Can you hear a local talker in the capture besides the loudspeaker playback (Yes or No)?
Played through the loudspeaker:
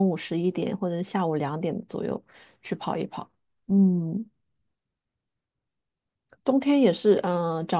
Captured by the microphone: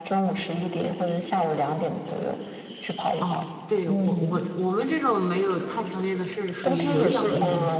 Yes